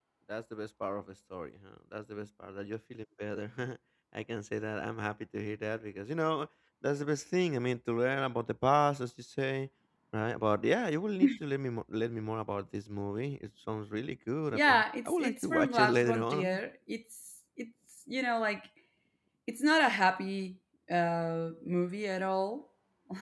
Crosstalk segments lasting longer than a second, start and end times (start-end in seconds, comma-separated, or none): 14.5-16.6